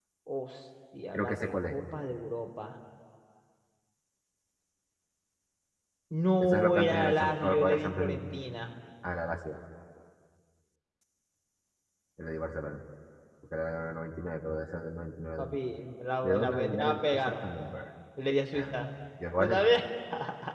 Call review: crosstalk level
present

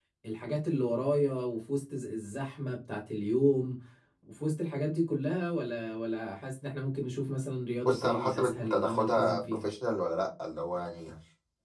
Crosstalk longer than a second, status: present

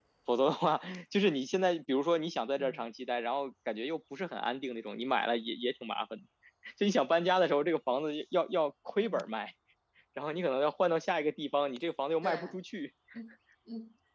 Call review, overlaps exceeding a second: none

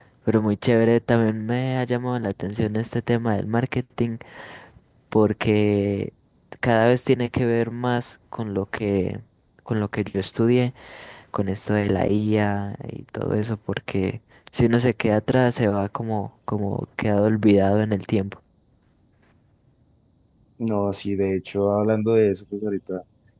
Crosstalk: none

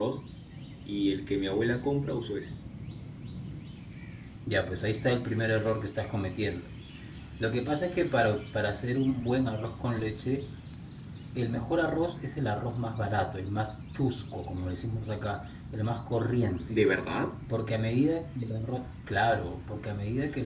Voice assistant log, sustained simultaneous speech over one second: none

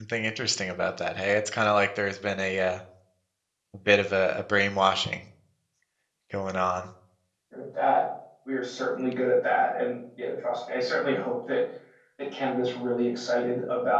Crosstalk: none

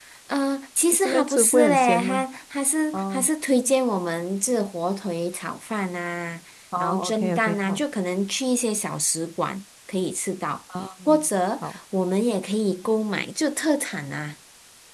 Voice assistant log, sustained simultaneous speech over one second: present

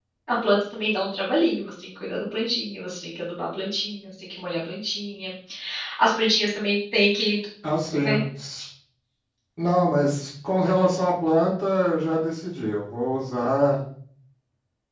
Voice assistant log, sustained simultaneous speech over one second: none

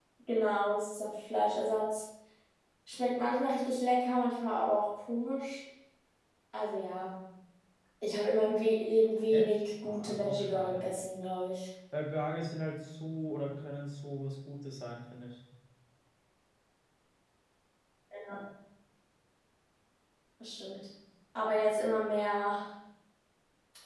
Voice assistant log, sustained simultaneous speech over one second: present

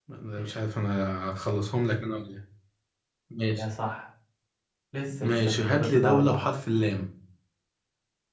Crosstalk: present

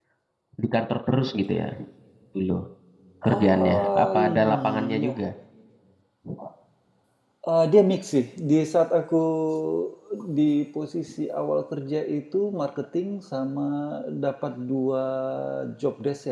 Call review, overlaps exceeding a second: present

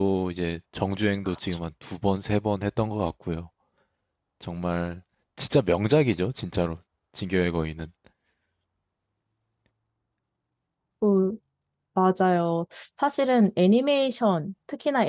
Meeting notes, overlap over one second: none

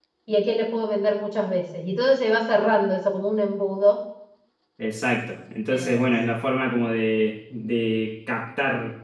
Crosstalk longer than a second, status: none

